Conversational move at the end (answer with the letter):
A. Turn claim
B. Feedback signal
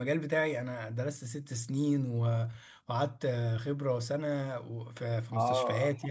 A